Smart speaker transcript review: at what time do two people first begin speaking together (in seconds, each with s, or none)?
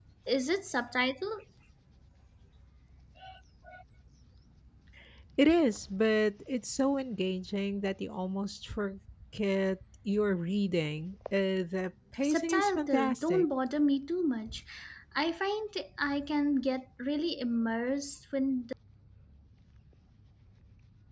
12.2 s